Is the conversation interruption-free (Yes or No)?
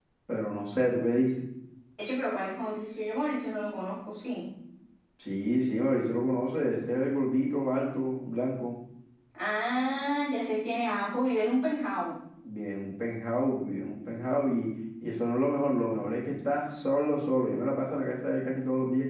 Yes